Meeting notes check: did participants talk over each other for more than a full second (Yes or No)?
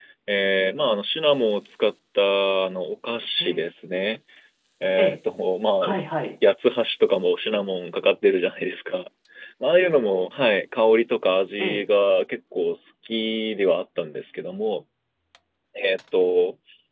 No